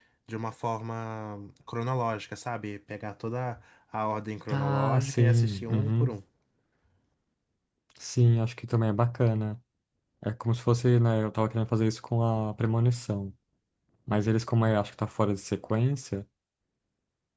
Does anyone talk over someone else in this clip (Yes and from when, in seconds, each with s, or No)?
Yes, from 4.5 s